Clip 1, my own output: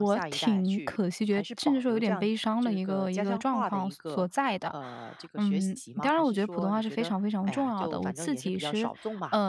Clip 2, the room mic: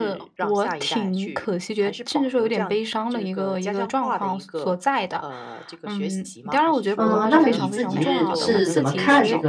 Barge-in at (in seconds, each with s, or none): 6.9 s